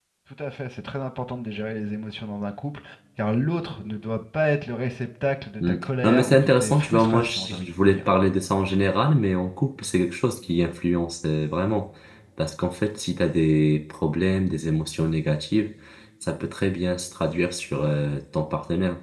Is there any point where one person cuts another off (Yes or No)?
Yes